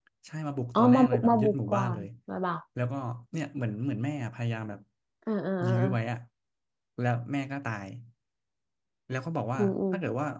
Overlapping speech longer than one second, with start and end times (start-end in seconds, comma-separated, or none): 0.8-2.1